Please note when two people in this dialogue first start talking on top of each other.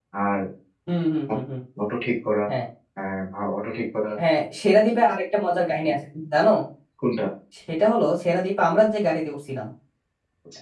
none

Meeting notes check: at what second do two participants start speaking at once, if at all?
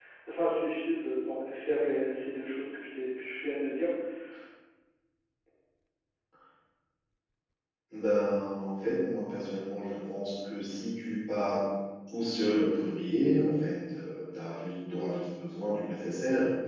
none

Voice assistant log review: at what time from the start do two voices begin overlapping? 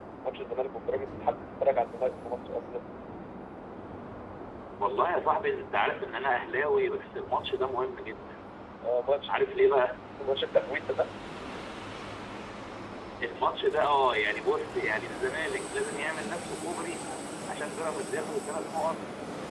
none

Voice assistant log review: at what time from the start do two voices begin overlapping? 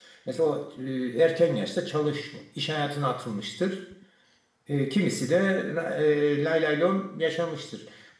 none

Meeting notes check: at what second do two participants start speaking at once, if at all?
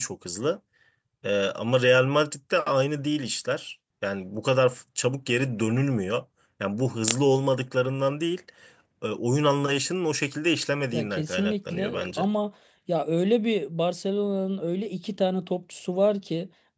10.9 s

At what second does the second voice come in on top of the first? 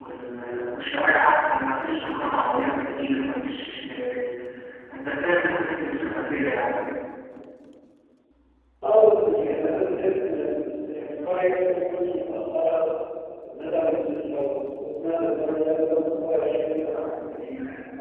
none

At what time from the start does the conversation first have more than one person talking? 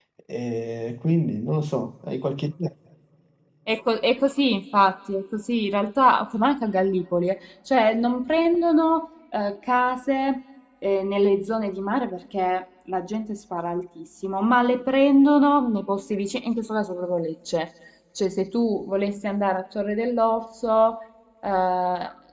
none

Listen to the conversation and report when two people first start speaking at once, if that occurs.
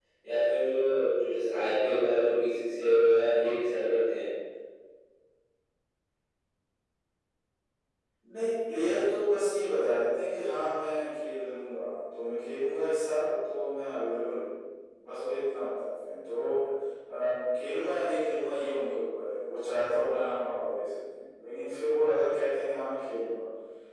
none

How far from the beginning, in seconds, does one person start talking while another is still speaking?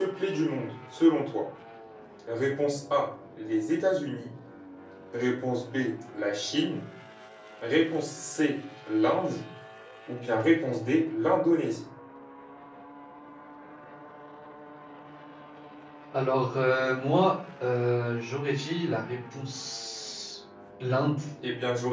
none

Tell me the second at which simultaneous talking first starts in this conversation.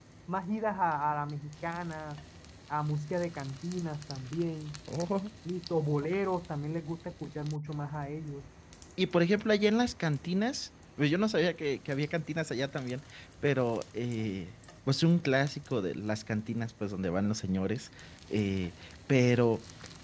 none

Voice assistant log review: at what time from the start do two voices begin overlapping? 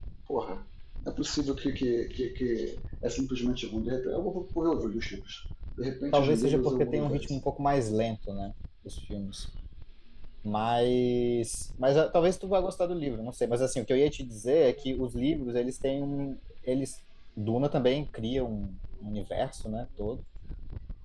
6.1 s

